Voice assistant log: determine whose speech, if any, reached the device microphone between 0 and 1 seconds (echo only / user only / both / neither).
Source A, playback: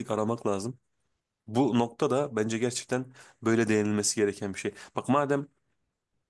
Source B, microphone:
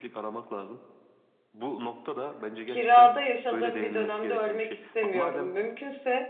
echo only